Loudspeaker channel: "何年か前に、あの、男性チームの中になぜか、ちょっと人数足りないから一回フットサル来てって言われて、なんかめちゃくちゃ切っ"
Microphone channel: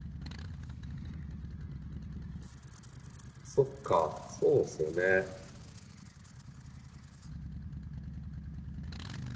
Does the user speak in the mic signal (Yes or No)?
Yes